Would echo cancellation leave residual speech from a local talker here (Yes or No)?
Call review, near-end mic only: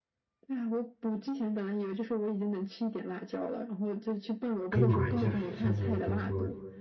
Yes